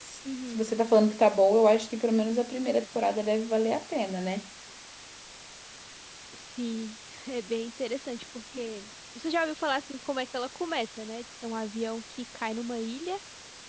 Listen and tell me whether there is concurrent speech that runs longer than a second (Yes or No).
No